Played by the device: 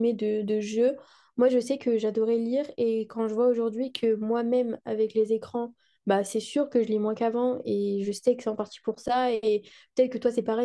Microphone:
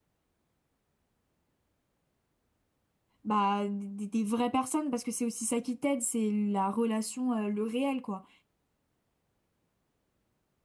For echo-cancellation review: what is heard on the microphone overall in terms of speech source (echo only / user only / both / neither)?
user only